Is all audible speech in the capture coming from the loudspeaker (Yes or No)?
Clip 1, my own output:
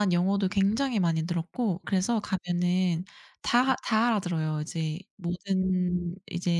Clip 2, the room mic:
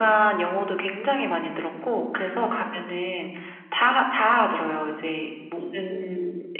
Yes